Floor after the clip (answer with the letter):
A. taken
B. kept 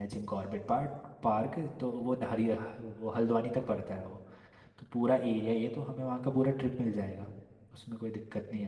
A